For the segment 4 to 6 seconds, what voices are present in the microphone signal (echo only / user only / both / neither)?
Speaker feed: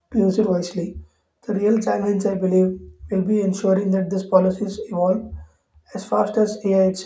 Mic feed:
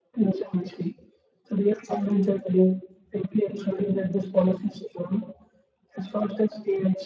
echo only